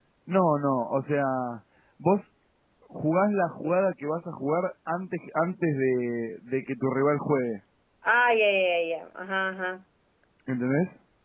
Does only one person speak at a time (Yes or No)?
Yes